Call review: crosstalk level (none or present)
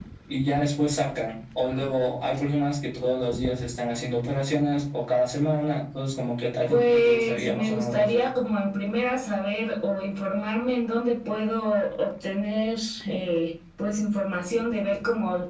present